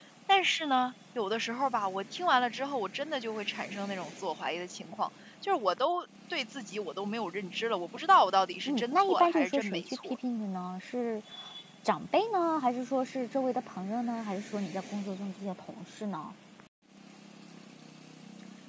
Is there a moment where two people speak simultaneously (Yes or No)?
Yes